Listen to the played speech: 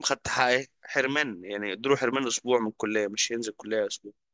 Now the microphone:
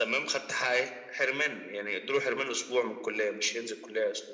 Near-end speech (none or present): none